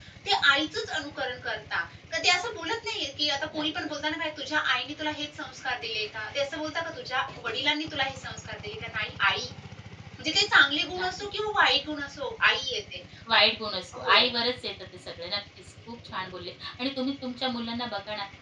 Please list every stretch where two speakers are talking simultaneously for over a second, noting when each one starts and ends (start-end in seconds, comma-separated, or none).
none